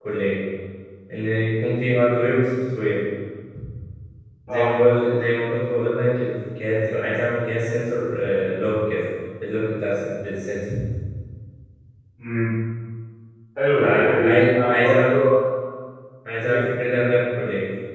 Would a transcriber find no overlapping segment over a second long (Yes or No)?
No